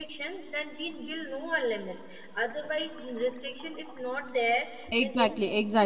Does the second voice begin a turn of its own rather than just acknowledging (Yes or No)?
Yes